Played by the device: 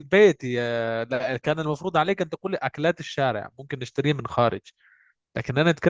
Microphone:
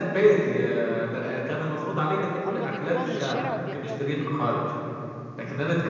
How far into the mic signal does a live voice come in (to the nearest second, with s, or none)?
2 s